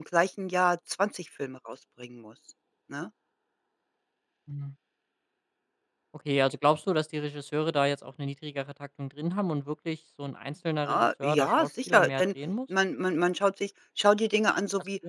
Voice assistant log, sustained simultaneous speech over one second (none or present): present